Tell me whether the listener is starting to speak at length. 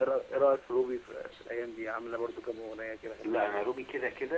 Yes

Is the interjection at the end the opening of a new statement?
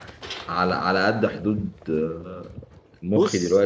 No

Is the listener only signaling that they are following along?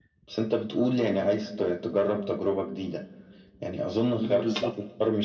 Yes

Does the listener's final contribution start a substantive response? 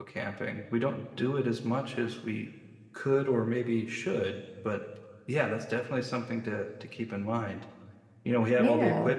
No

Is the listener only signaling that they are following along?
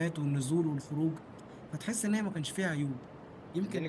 No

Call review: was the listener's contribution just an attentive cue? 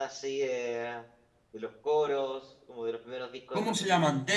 No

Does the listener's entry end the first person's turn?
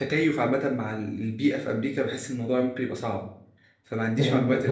Yes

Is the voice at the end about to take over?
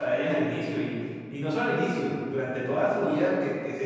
No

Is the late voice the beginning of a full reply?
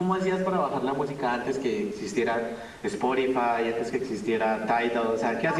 Yes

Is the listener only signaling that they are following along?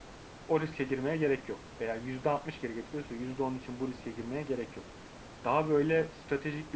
Yes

